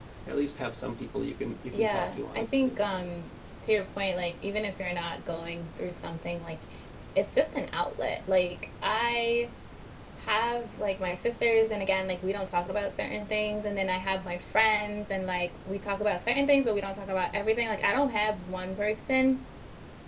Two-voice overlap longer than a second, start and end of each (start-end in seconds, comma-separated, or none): 1.7-3.0